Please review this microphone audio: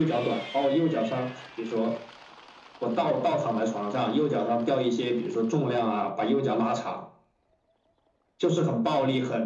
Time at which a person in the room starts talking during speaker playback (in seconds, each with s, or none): none